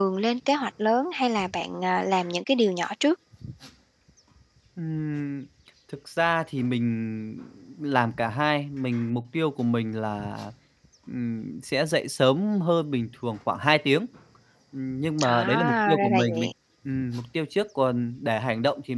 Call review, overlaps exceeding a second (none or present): present